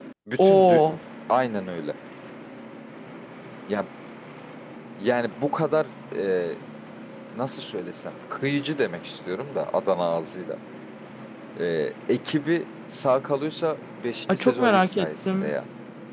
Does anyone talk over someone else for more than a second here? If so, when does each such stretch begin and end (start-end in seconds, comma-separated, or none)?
14.3-15.5